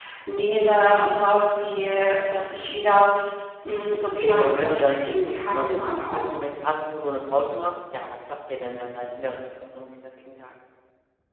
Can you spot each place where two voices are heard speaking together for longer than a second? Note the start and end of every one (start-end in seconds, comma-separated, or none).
4.2-6.2